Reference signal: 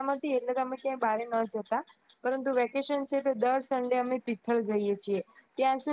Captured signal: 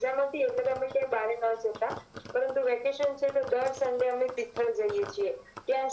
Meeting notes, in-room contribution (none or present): none